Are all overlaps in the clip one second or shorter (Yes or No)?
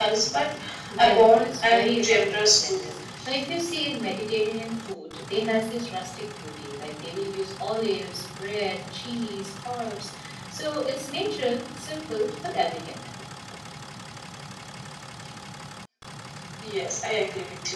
No